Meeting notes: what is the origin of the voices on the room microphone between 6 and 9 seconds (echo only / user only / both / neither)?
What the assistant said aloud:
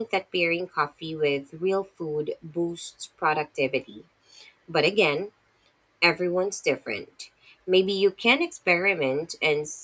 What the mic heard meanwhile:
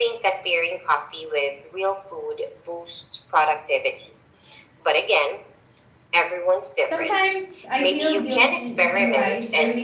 both